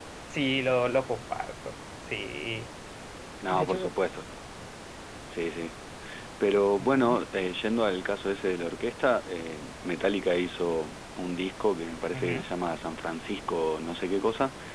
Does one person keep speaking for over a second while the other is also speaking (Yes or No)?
No